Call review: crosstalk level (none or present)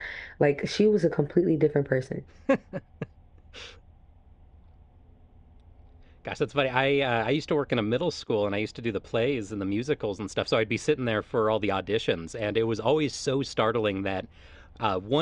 none